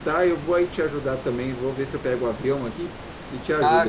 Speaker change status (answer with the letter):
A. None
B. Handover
B